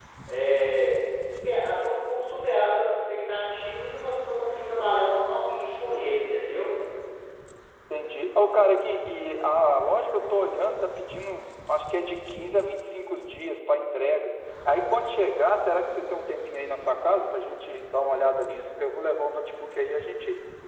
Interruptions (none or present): none